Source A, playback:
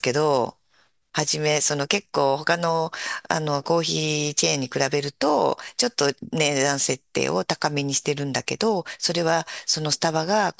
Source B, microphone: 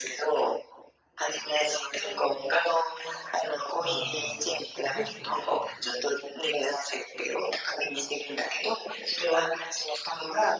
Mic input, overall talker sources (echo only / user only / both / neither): both